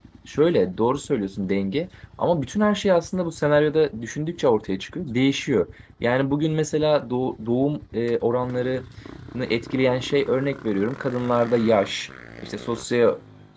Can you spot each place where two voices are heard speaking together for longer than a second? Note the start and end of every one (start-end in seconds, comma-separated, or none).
none